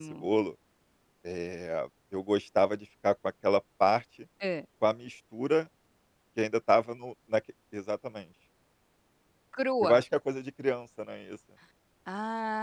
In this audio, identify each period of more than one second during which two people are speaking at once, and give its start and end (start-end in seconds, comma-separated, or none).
none